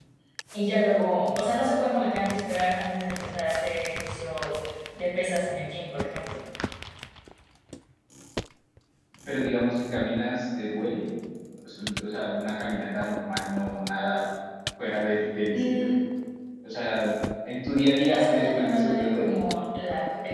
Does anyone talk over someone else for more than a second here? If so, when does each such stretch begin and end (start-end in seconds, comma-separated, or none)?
18.1-19.4